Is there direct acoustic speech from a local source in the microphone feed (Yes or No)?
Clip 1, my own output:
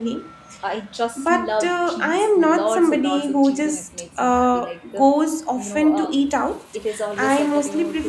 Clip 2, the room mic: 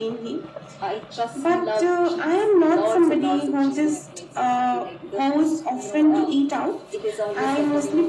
No